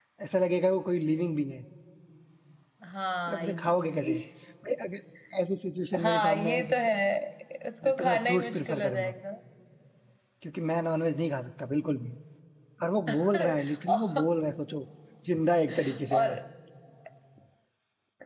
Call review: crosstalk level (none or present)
present